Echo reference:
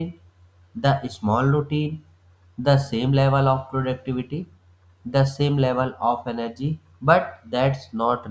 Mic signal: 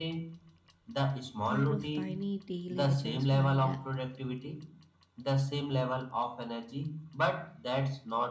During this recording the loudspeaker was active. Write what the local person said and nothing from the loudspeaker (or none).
kind of tiny daily adjustment that